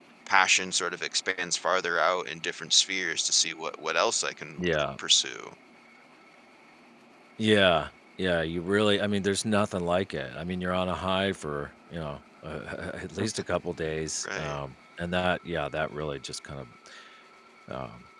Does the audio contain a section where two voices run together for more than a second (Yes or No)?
No